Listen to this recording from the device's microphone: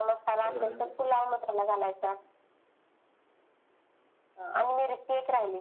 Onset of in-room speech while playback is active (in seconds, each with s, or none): 0.4 s